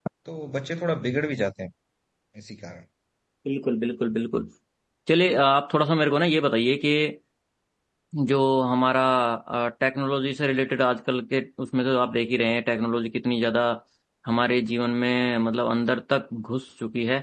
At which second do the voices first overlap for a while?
none

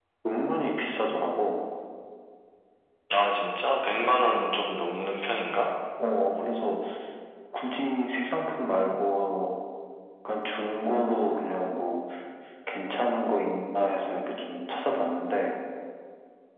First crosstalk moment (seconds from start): none

